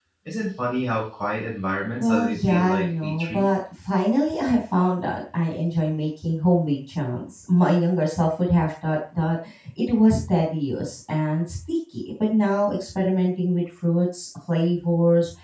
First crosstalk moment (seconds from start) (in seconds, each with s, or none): 2.0 s